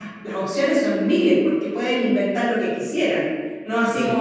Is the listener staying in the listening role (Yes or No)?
Yes